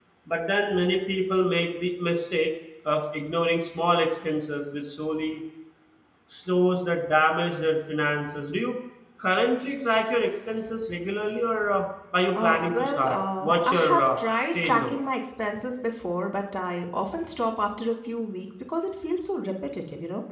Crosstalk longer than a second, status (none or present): present